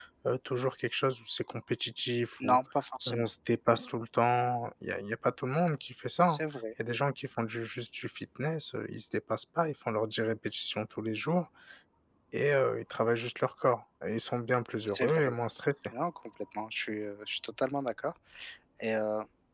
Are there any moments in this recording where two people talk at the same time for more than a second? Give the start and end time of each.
none

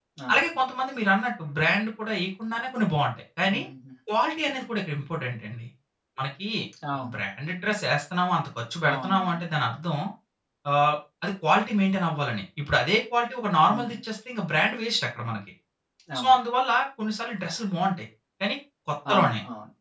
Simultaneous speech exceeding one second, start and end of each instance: none

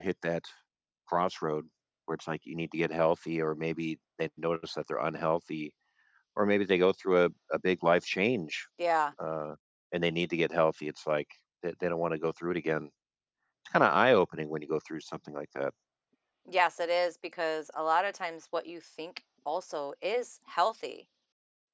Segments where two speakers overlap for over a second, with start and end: none

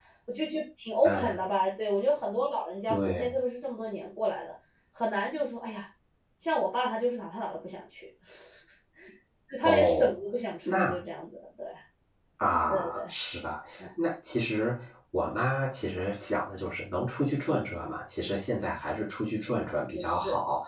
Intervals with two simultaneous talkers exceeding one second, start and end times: none

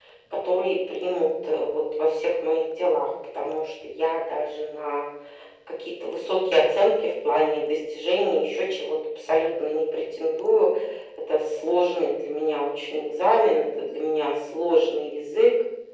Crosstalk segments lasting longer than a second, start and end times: none

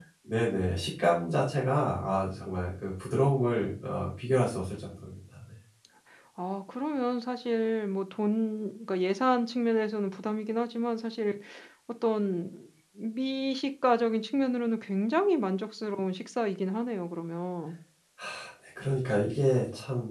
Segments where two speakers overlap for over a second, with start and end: none

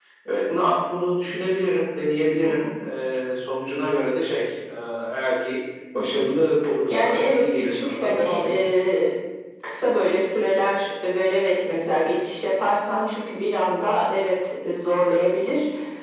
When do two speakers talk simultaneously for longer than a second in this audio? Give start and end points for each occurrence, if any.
6.9-8.8

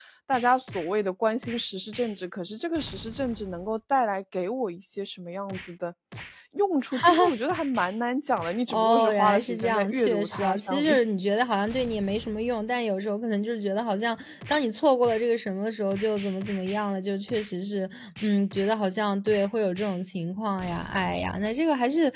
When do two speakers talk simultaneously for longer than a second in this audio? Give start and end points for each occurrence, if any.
8.7-11.0

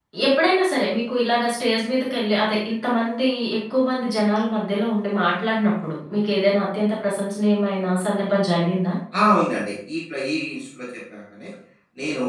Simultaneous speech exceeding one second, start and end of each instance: none

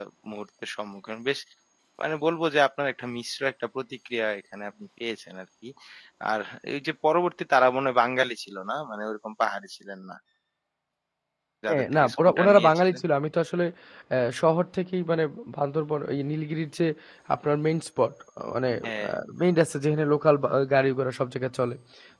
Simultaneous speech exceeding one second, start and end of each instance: 11.7-13.0

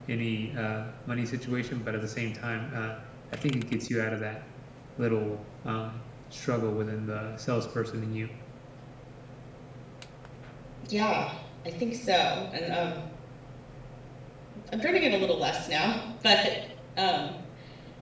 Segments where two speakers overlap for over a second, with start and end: none

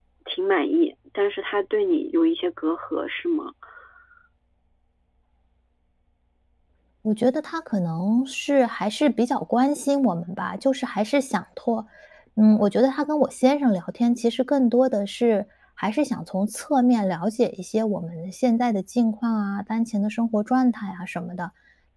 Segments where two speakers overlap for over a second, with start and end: none

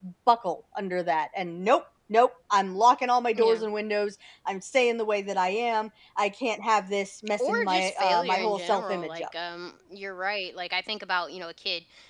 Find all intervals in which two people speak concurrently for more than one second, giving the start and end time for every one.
7.4-9.2

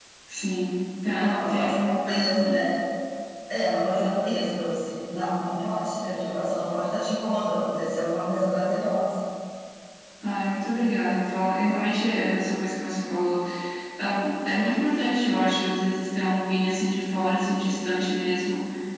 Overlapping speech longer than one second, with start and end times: 1.3-2.6

